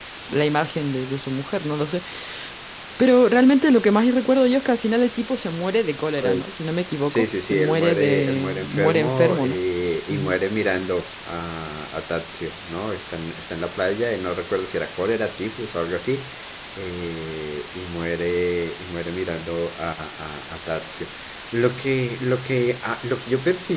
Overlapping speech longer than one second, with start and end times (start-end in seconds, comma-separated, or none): 7.1-9.6